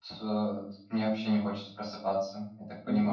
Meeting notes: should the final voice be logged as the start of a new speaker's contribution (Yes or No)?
Yes